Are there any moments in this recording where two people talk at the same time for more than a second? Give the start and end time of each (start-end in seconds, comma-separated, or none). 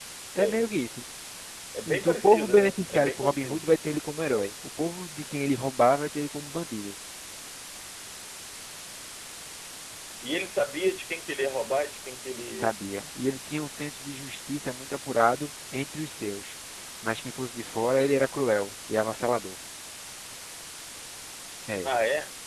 1.9-3.7